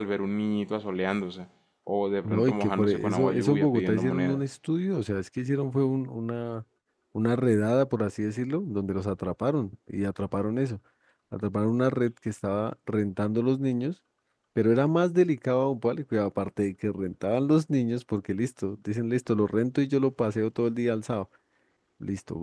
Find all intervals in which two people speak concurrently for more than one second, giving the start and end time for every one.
2.2-4.4

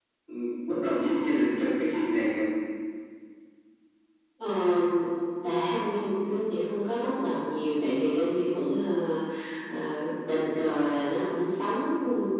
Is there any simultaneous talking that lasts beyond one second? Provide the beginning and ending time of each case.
none

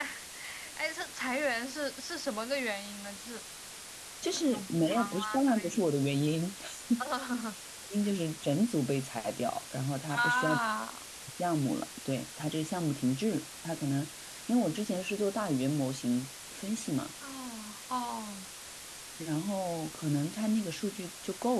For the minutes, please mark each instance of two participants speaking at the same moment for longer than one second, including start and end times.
4.5-5.7

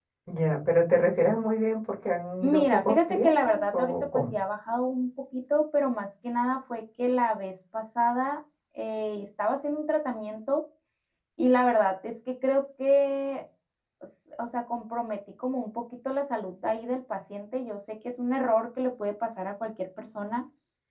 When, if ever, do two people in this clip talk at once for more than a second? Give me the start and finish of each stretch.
2.4-4.3

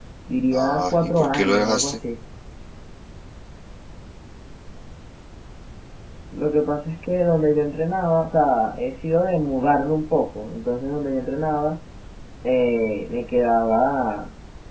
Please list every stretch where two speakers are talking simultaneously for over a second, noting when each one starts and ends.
0.5-2.0

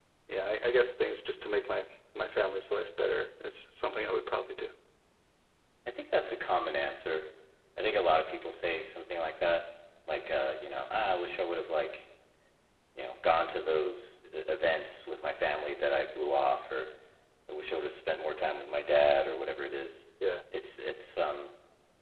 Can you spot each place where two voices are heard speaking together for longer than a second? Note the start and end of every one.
none

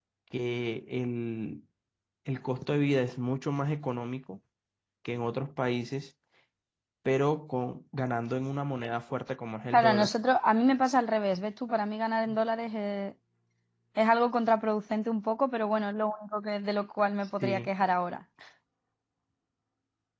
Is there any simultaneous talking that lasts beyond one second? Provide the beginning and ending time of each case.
none

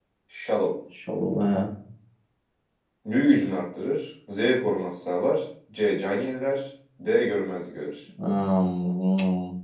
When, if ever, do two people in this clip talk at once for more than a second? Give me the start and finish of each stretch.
none

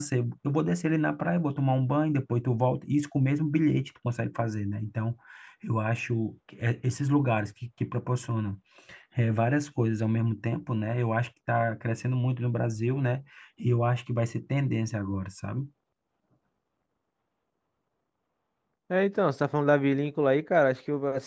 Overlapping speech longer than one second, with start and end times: none

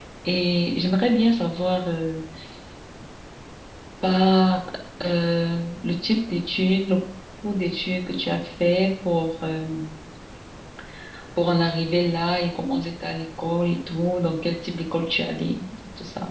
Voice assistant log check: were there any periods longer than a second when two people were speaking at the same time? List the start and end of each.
none

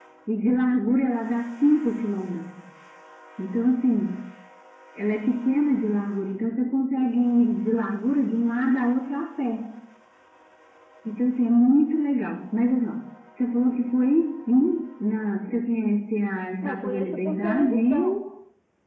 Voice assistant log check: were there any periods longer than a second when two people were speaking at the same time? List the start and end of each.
16.6-18.2

